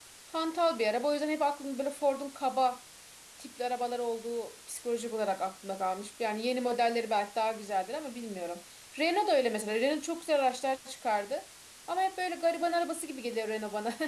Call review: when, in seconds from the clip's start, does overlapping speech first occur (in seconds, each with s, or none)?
none